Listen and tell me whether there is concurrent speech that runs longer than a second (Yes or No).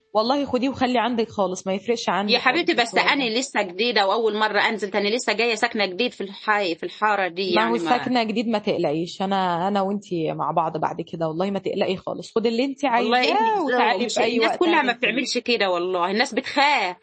Yes